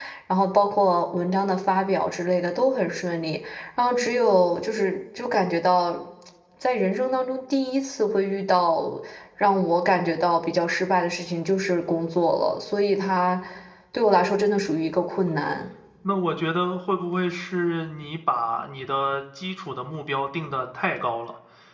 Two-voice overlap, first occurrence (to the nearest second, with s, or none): none